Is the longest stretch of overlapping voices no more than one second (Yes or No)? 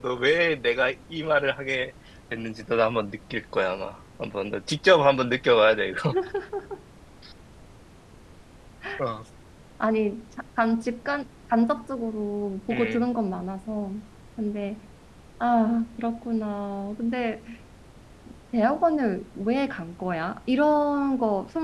Yes